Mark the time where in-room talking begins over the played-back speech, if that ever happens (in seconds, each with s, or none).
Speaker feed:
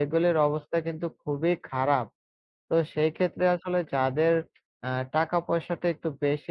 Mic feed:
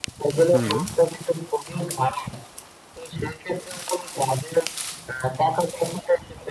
0.5 s